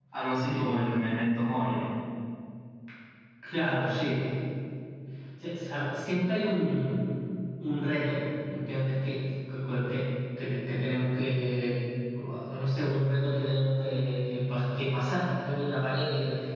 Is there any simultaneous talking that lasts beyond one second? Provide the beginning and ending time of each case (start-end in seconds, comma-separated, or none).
none